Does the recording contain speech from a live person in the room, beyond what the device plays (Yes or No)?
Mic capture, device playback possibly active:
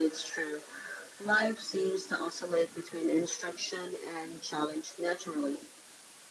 No